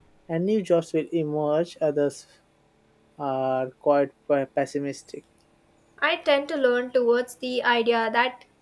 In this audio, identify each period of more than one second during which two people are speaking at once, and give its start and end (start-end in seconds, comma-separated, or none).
none